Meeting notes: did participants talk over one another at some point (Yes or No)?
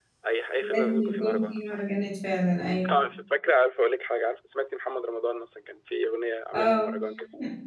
Yes